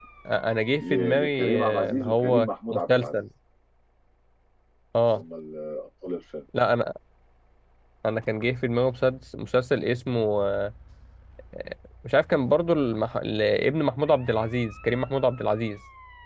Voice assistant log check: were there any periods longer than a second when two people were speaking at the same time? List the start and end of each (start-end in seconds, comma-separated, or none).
0.8-3.2